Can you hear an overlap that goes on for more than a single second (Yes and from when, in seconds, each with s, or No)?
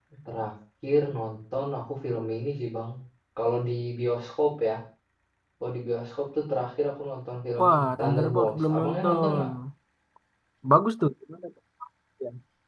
Yes, from 7.6 s